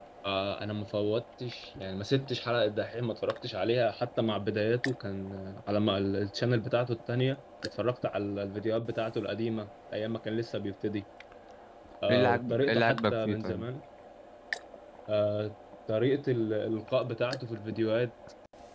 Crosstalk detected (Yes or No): Yes